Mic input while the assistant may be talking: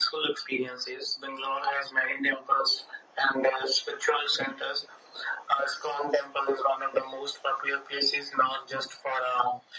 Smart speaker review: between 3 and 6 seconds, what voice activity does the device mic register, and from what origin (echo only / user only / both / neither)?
echo only